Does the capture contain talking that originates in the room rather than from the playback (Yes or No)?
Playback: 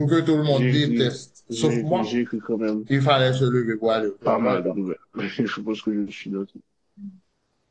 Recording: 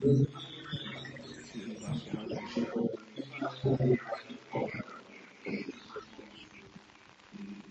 Yes